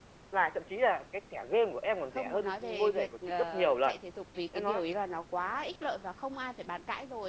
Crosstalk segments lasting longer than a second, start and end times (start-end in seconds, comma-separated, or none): 2.1-4.0